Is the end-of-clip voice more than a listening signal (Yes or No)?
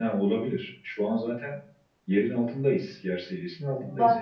Yes